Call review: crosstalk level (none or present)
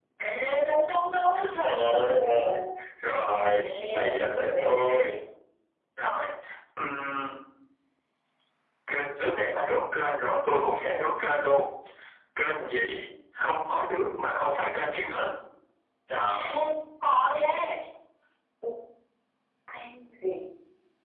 present